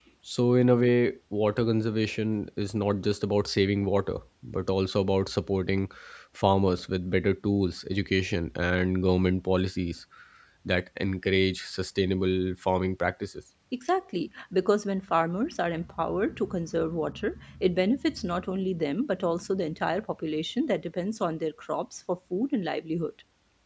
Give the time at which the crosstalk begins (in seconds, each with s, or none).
none